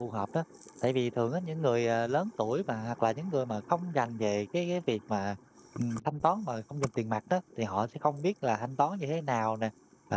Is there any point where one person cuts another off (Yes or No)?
No